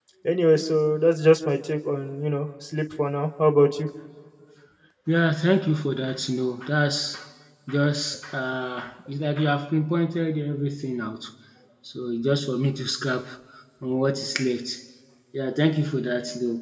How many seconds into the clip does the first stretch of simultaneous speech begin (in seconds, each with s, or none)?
none